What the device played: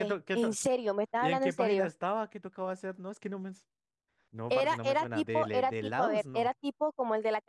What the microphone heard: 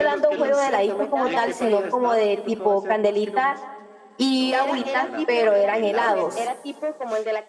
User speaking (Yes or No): Yes